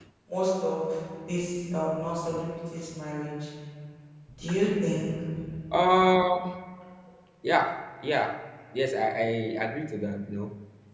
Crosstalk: none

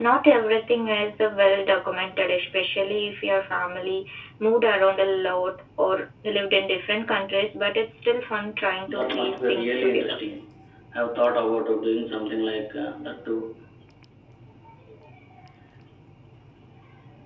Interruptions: present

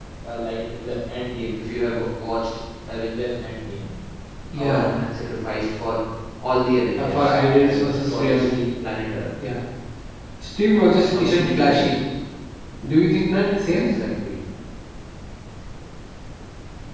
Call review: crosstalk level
present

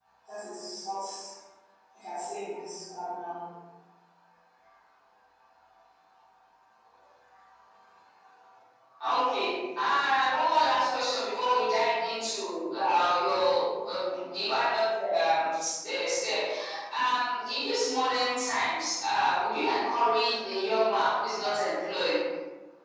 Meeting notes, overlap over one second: none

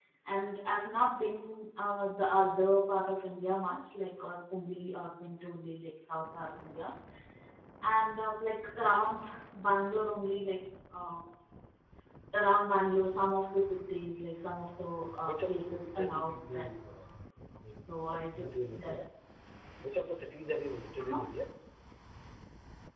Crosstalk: present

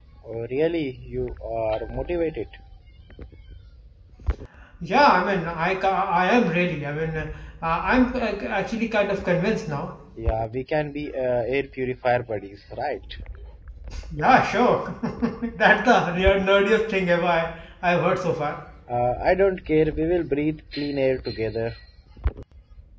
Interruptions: none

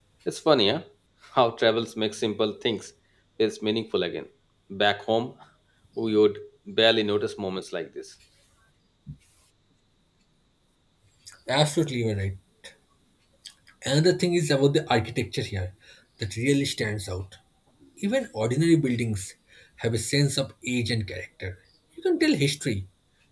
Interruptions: none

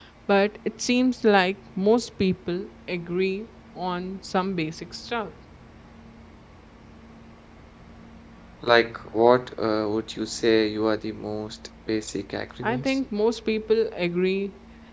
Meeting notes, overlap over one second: none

